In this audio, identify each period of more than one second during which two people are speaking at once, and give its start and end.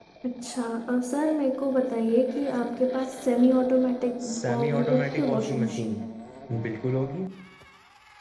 4.2-6.0

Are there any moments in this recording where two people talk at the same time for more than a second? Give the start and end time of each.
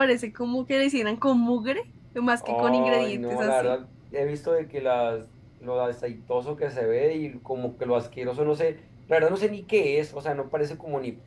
2.5-3.8

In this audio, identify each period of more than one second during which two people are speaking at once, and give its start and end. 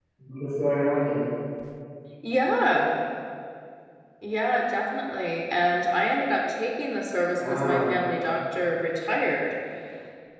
none

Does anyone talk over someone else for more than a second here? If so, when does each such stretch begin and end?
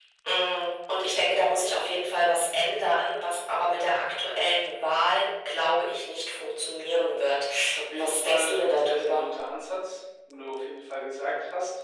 8.0-9.3

